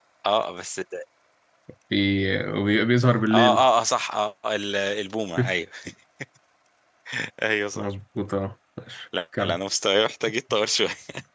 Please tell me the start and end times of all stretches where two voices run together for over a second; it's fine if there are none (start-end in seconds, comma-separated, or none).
none